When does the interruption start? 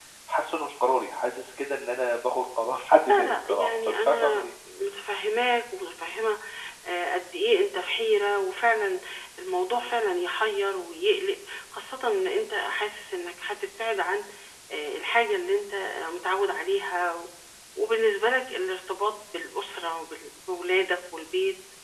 3.1 s

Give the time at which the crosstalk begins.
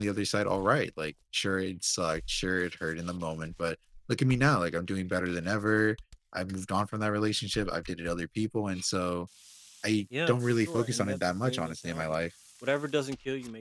10.3 s

